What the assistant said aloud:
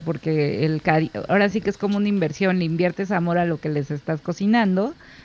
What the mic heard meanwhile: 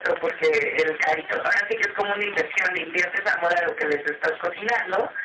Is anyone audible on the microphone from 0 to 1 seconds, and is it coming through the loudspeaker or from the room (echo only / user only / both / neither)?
echo only